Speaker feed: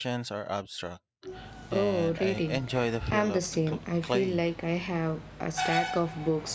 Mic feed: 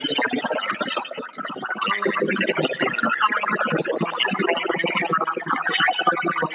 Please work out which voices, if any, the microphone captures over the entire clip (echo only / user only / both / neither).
echo only